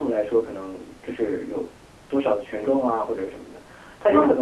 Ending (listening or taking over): listening